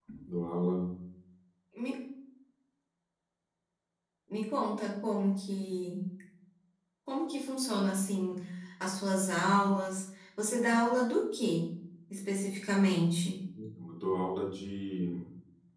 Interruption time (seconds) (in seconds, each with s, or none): none